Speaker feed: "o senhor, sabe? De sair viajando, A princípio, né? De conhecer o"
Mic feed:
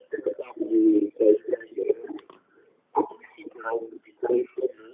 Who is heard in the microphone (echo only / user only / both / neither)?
echo only